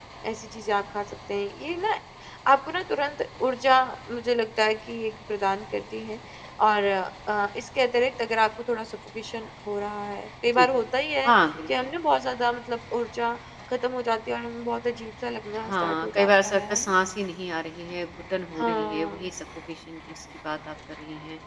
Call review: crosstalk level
present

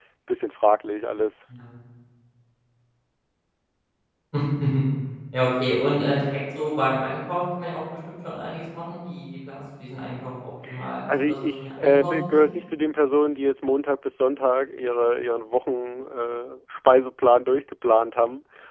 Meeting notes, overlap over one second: present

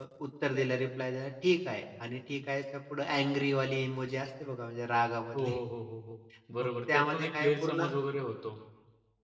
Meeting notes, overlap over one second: present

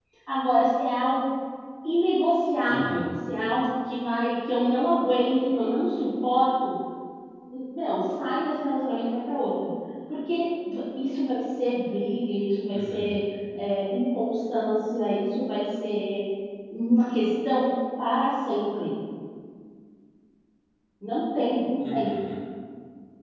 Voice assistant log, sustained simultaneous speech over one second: none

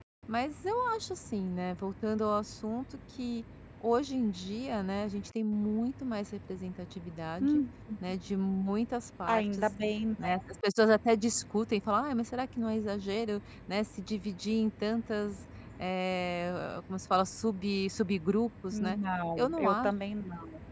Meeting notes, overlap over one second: none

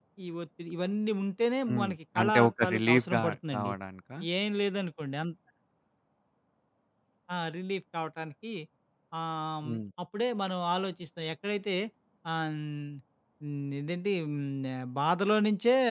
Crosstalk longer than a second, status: present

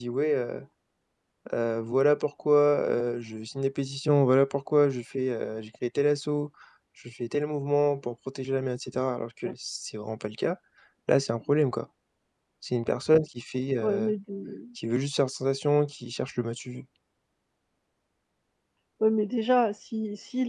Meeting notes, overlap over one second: none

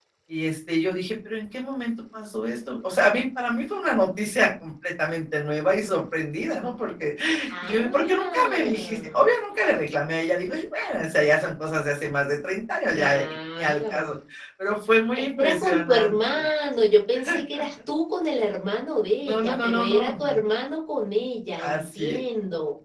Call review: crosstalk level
present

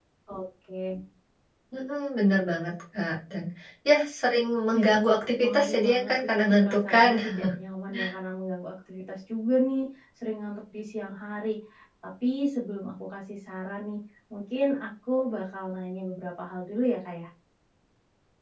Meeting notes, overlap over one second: present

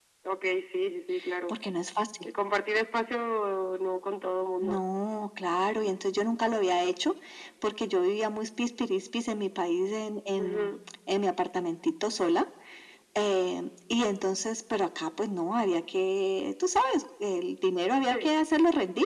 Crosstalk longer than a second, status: none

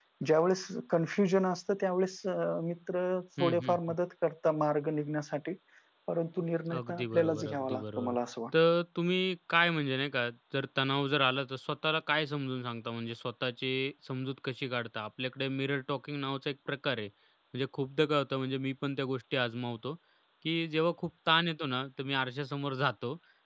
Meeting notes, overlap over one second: present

